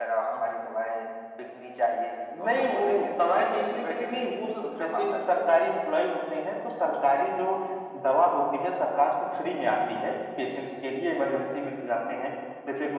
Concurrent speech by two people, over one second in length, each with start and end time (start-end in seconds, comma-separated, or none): 2.4-5.2